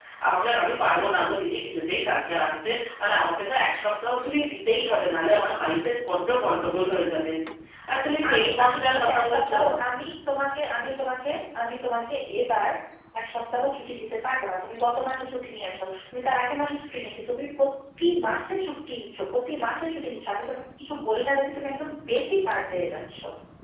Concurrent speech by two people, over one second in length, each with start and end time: 8.3-9.5

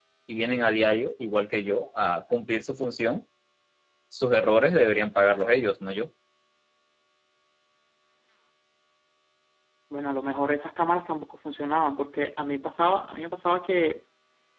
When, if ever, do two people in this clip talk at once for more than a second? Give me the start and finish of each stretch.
none

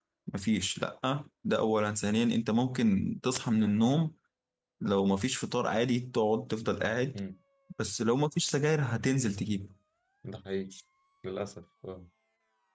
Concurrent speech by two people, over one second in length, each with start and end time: none

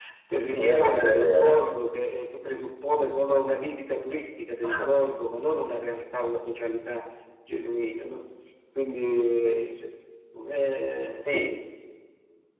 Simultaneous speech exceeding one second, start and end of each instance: 0.5-1.8

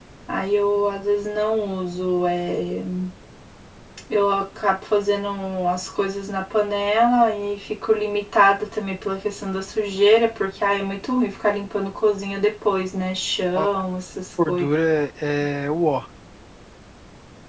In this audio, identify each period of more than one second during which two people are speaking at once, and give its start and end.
none

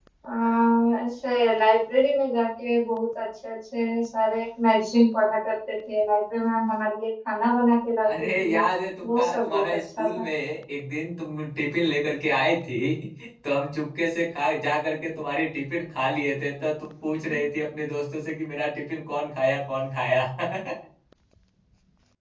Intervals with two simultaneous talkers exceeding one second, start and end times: 9.0-10.2

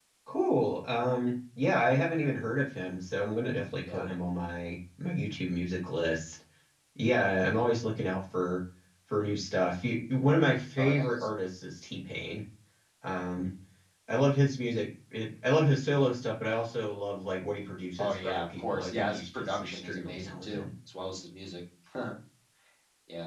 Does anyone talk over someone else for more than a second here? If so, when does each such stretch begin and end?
18.0-20.6

